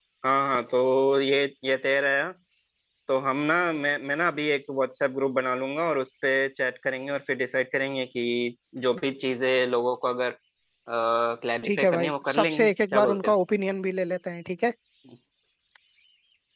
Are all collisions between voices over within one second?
No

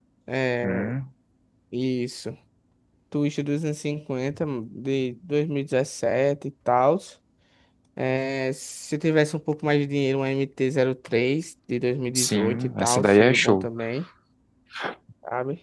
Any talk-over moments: Yes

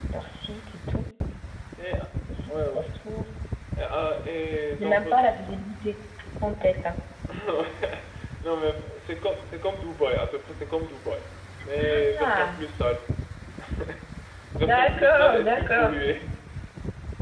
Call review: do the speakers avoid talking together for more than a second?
No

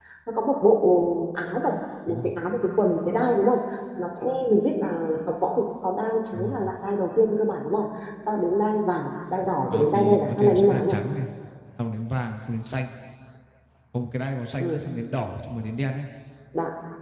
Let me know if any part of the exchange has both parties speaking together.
Yes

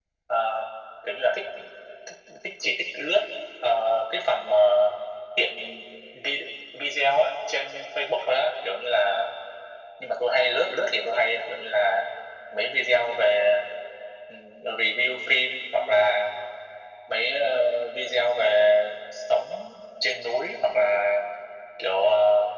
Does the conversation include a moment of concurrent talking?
No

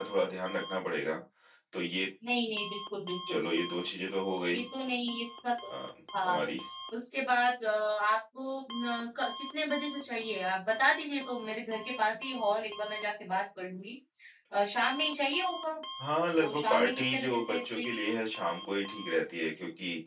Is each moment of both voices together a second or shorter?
No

